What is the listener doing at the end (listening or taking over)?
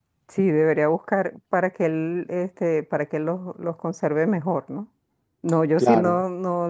listening